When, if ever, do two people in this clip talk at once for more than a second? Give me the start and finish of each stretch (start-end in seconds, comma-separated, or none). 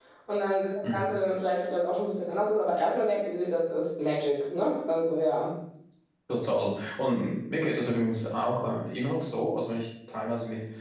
none